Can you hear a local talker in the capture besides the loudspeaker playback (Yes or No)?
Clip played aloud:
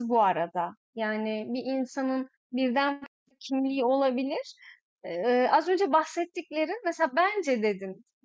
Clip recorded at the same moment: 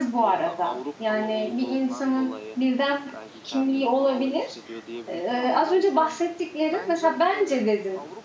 Yes